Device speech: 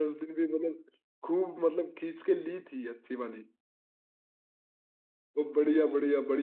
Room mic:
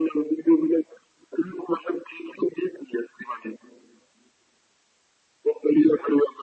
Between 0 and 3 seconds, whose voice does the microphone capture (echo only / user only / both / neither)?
echo only